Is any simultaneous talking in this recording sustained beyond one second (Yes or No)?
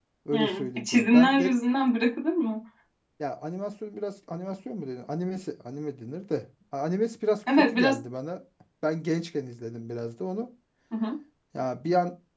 Yes